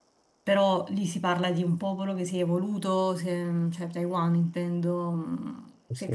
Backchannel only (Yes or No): Yes